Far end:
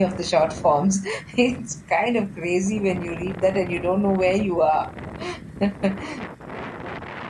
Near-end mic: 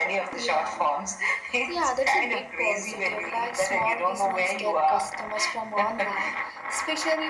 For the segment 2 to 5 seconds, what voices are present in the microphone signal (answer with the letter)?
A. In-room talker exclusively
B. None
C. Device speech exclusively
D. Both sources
D